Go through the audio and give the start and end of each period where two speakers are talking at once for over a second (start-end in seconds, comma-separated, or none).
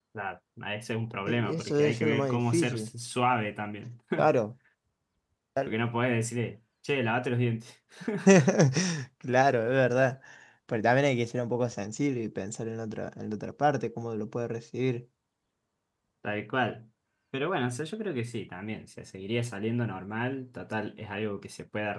1.3-2.9